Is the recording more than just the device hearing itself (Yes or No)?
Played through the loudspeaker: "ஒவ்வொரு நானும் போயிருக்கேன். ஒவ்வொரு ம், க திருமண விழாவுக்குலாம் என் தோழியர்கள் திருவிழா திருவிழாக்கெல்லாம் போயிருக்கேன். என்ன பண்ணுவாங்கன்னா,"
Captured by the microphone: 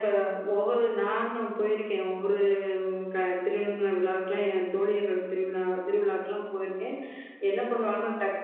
No